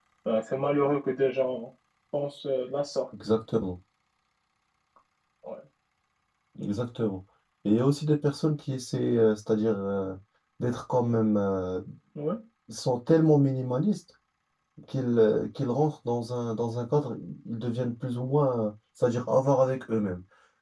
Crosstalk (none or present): none